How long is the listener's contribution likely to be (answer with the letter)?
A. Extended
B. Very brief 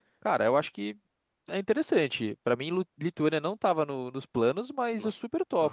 B